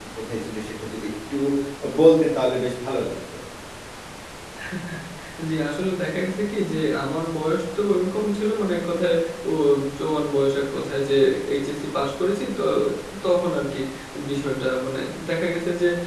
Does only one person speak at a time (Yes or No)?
Yes